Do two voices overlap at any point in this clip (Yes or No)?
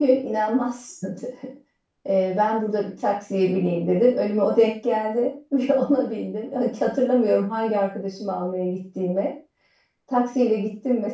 No